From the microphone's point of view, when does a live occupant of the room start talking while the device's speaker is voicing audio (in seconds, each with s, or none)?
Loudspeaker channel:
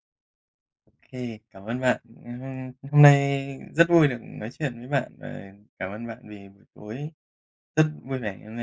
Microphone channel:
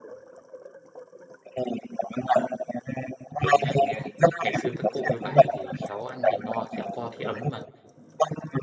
3.4 s